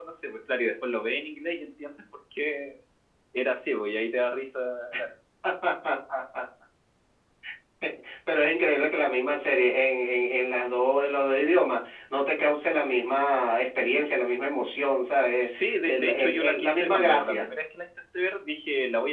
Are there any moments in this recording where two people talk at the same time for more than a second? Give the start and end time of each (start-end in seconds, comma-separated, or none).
15.4-17.4